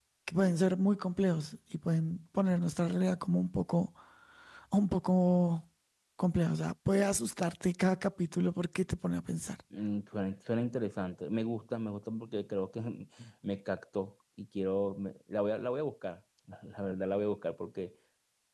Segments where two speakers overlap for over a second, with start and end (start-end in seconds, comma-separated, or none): none